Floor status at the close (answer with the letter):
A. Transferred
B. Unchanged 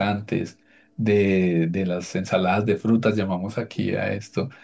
B